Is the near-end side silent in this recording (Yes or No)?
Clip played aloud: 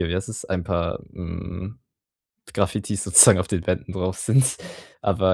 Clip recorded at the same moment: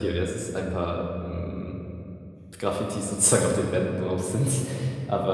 Yes